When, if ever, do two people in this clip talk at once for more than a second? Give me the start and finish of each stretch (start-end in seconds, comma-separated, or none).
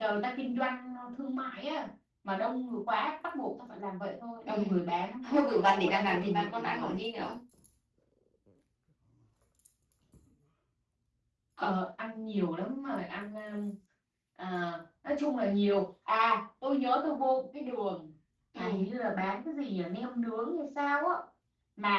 5.2-6.9